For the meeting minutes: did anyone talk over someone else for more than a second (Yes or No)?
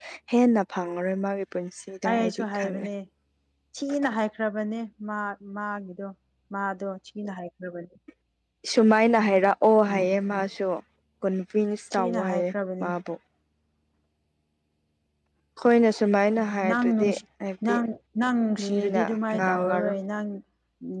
Yes